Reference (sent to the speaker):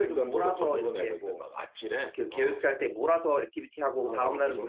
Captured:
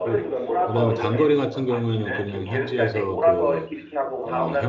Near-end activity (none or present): present